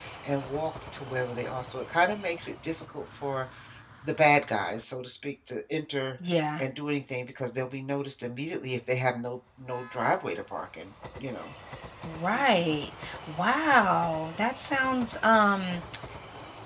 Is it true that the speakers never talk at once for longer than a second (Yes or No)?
Yes